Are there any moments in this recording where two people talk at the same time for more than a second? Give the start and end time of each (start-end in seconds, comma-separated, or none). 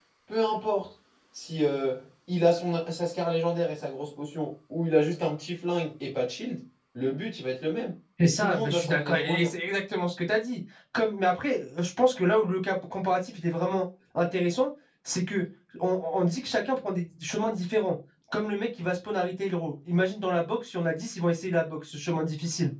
8.2-9.5